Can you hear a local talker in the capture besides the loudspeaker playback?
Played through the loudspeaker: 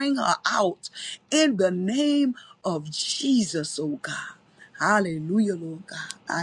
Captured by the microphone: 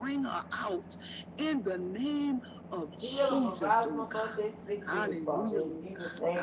Yes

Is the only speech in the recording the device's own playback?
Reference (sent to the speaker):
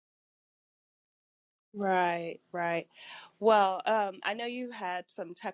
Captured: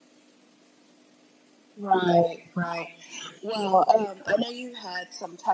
Yes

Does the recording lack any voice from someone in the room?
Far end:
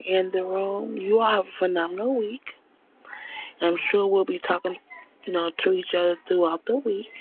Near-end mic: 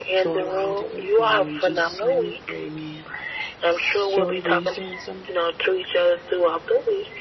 No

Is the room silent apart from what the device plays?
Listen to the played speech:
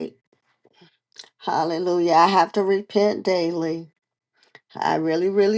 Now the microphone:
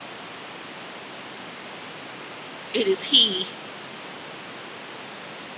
No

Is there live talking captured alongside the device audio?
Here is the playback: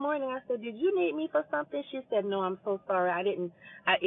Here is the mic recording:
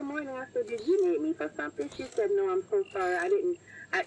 No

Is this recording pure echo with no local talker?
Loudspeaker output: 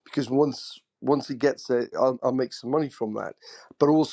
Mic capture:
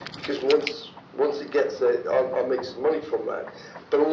Yes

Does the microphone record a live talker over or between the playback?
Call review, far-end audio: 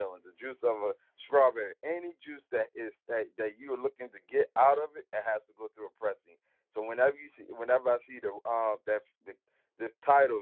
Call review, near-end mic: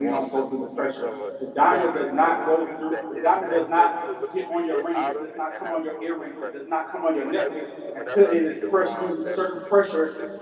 Yes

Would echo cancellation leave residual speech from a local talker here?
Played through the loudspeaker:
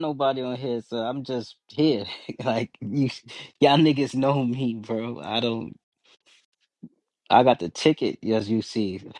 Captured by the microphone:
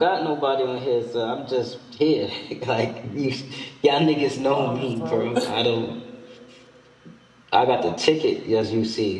Yes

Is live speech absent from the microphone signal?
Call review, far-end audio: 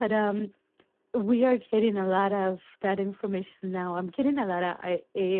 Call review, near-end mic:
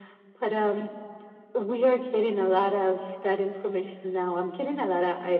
Yes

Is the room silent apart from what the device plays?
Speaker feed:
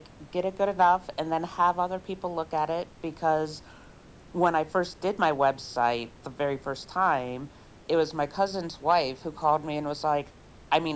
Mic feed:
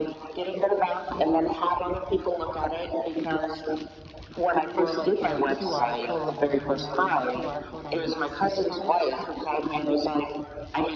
No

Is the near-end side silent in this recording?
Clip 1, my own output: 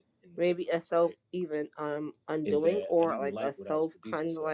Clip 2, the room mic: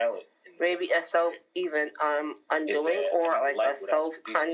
Yes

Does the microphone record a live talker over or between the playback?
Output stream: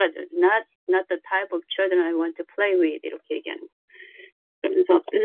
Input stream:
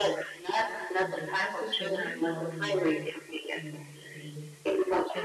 Yes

